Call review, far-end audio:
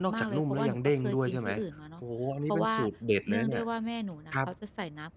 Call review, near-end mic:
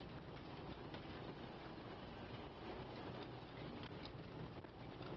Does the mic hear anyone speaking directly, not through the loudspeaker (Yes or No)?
No